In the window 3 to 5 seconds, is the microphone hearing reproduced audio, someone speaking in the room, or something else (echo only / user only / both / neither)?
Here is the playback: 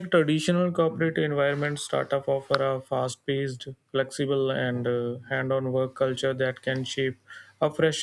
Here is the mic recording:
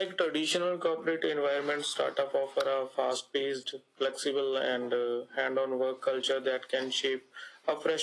echo only